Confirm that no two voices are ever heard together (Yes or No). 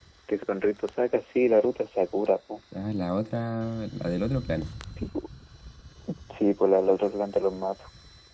Yes